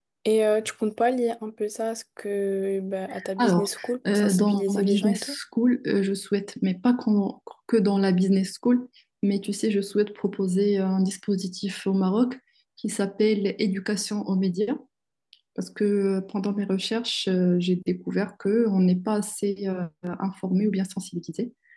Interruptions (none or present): present